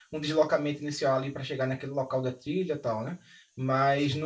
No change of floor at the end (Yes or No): Yes